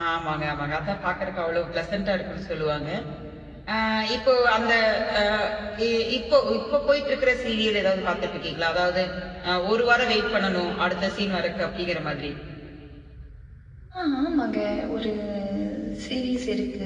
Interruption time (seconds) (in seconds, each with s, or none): none